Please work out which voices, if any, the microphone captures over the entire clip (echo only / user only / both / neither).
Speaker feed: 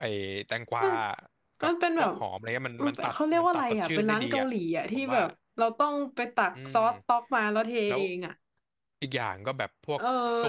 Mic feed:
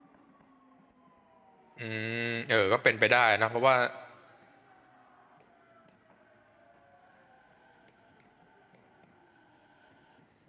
user only